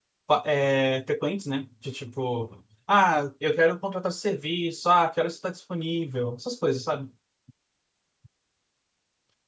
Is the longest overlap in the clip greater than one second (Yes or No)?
No